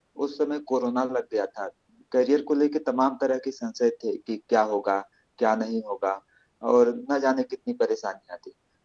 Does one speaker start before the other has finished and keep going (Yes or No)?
No